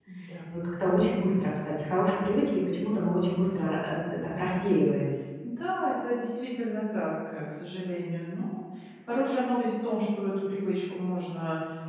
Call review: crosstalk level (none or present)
none